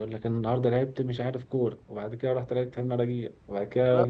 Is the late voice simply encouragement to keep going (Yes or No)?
No